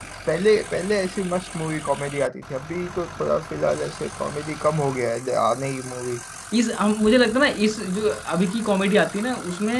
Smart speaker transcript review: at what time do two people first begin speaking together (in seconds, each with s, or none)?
none